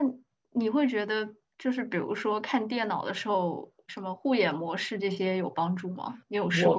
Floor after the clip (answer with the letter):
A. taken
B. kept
A